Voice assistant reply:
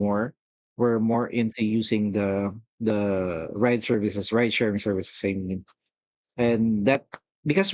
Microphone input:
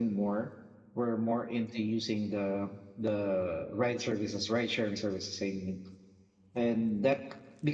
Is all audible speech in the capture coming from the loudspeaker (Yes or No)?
Yes